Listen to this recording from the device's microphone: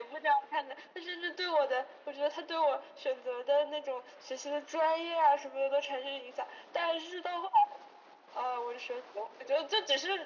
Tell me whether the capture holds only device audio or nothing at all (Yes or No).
Yes